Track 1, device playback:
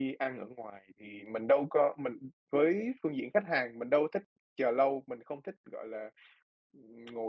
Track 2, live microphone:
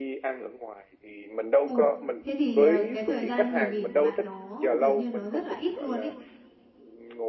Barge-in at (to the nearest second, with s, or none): 2 s